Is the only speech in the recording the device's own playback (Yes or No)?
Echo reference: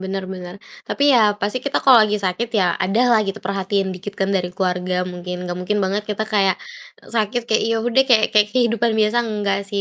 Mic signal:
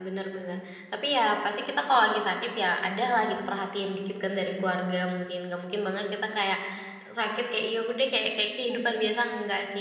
Yes